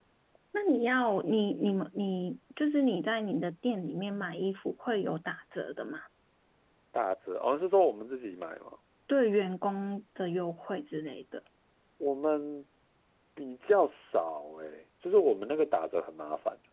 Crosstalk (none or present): none